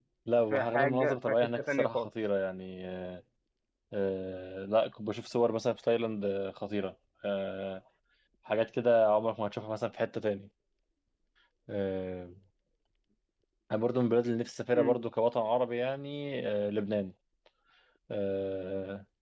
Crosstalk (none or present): present